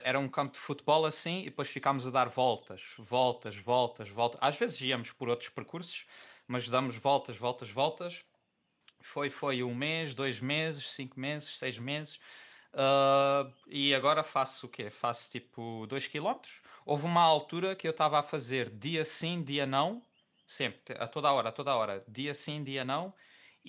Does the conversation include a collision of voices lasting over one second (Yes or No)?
No